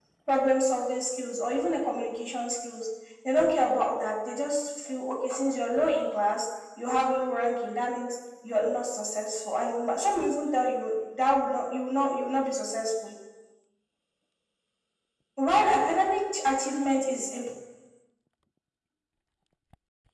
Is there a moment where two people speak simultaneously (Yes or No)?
No